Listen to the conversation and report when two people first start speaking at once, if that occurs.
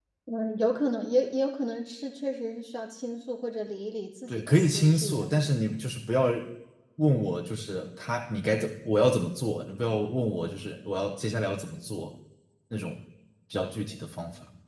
4 s

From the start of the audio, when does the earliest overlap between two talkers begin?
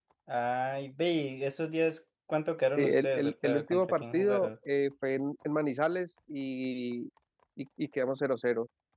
3 s

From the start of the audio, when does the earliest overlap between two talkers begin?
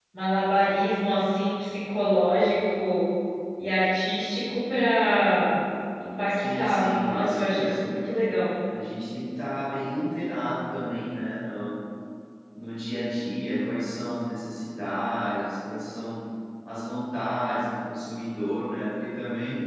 6 s

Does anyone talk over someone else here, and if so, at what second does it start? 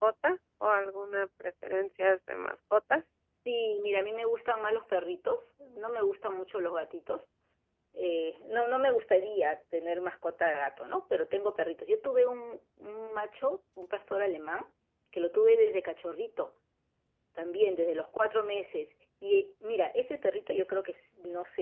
none

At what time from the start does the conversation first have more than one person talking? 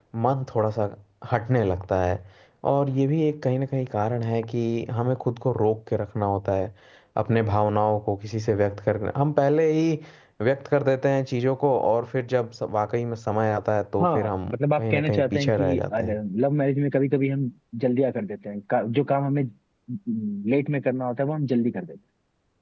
14 s

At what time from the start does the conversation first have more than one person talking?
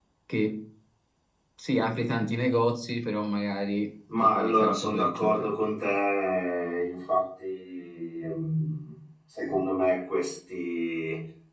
4 s

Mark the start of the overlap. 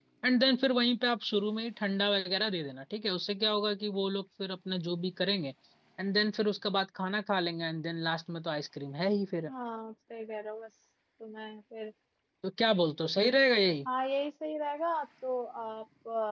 none

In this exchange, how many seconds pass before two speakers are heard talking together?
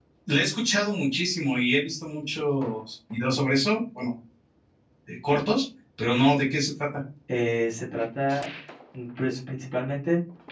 none

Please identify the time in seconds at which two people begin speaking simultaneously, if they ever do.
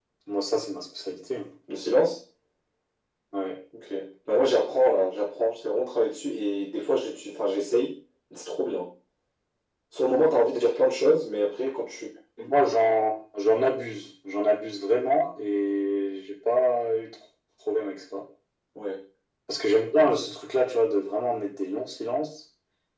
none

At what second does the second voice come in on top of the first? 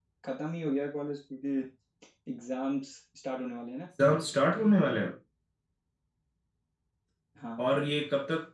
none

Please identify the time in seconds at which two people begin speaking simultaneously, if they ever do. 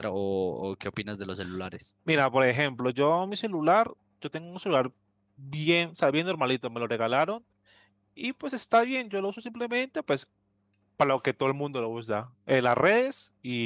none

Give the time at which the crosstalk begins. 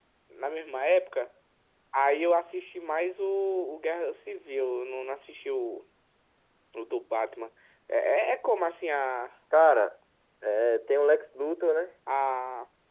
none

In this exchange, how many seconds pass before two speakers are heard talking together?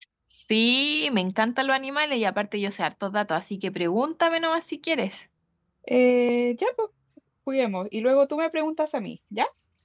none

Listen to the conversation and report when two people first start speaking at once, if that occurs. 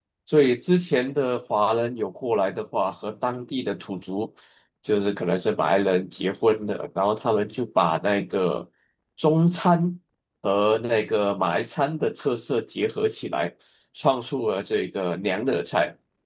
none

